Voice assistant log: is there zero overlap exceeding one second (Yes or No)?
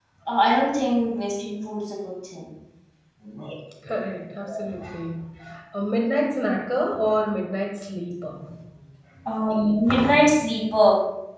Yes